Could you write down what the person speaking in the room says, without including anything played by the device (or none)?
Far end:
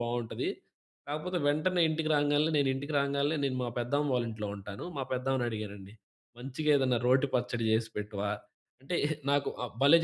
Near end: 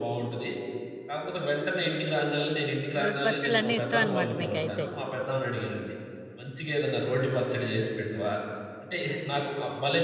రోటి పచ్చళ్ళన్నీ ఇష్టమనమాట మీకైతే.